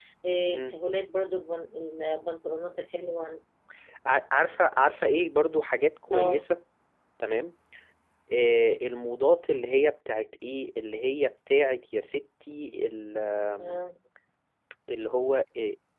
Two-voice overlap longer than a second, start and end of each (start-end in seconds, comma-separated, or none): none